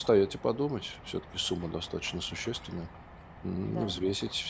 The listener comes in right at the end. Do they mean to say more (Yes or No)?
No